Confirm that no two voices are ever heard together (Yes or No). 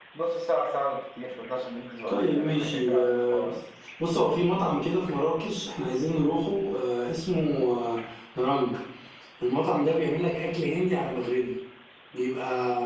No